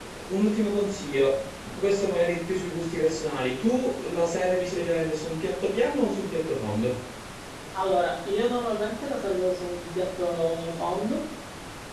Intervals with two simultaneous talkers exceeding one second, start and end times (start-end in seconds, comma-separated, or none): none